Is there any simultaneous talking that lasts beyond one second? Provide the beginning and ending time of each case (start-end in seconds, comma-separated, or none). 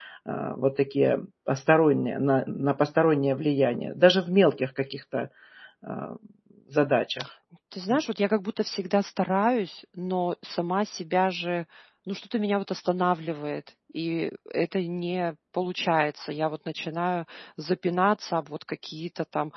none